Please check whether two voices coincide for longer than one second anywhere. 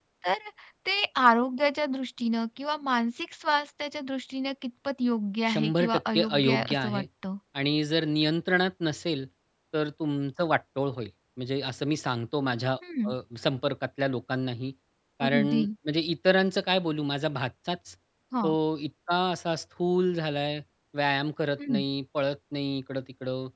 Yes, from 5.5 s

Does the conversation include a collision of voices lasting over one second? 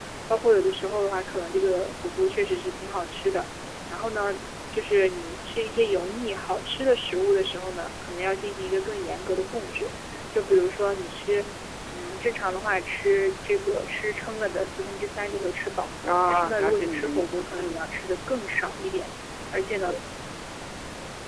Yes, from 16.3 s

